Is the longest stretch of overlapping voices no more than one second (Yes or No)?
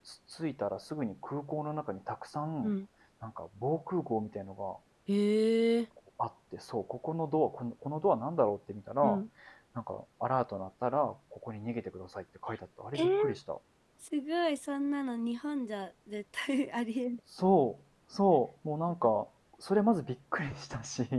Yes